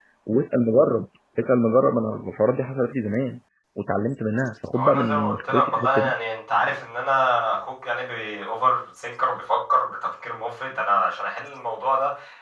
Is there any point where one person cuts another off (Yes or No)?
Yes